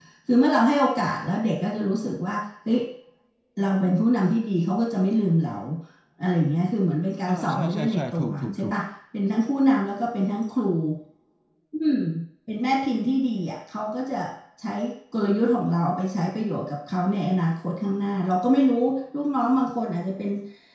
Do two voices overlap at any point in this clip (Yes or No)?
Yes